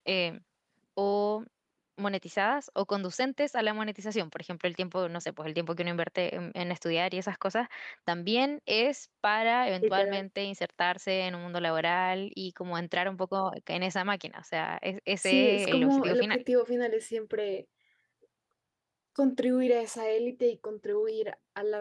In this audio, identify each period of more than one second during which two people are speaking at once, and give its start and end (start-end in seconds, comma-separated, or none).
15.2-16.4